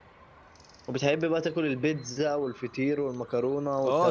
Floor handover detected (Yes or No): Yes